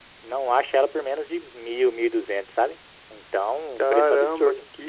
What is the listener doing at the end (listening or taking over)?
taking over